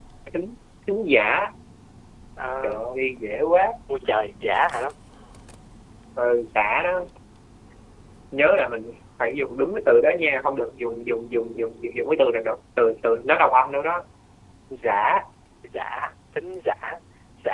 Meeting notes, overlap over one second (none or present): none